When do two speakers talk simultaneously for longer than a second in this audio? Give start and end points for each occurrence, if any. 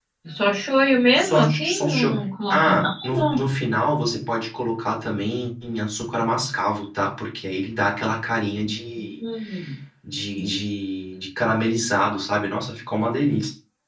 1.2-3.4

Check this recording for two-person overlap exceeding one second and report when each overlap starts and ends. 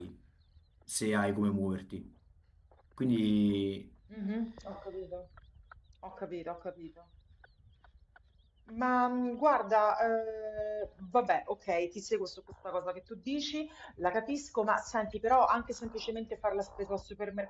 none

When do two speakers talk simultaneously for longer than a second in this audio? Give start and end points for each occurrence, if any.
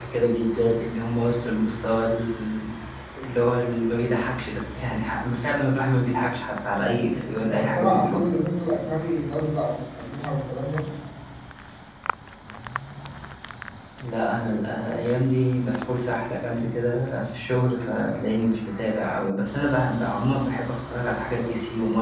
6.7-8.2

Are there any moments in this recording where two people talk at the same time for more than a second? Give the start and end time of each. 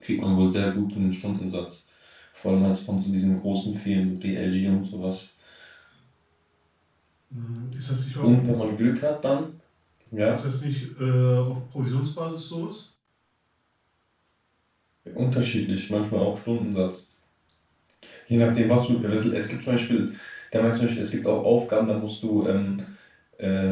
none

